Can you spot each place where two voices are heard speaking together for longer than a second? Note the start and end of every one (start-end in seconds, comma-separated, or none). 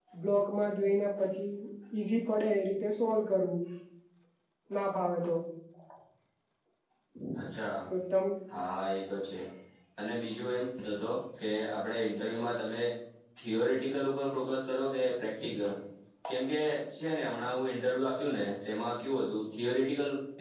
none